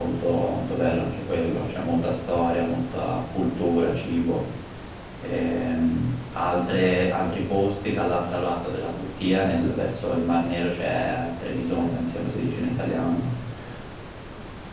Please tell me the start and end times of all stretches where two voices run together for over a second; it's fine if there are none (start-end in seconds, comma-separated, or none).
none